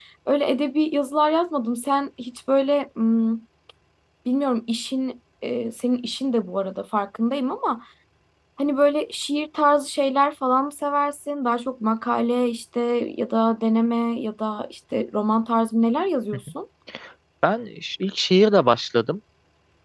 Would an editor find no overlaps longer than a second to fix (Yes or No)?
Yes